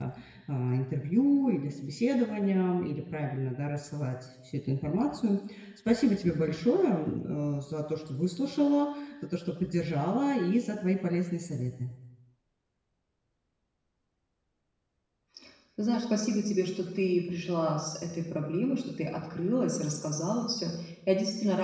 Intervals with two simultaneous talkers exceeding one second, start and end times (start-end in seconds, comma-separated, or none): none